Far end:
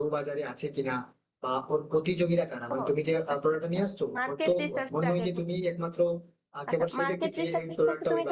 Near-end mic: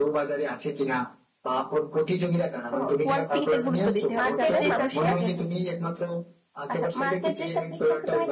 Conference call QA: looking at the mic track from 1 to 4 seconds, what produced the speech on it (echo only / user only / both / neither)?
both